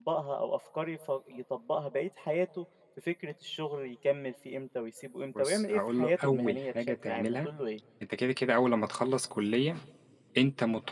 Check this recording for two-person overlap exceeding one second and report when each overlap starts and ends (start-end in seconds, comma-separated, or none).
5.4-7.5